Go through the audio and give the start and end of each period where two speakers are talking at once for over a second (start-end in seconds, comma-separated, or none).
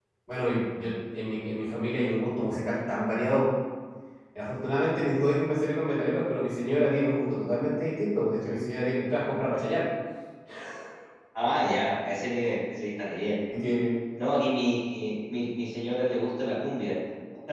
none